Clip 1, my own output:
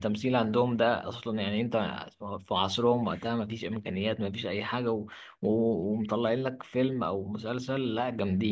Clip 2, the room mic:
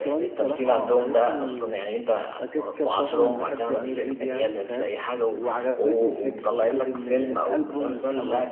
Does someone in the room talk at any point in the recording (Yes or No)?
Yes